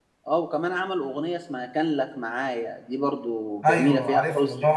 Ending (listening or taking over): taking over